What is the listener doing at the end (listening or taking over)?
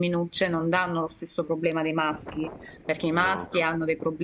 listening